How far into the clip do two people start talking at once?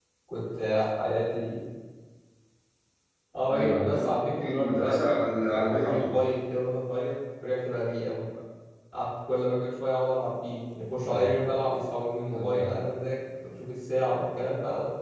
3 s

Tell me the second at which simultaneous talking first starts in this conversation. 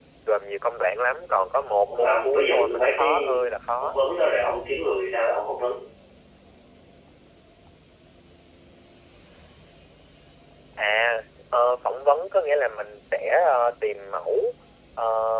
2 s

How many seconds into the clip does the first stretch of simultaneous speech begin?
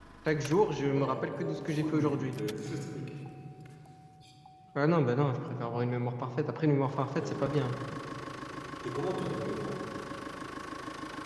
1 s

